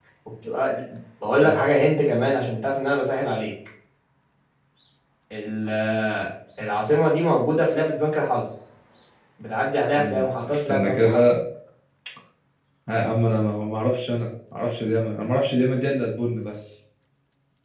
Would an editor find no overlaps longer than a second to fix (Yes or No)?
No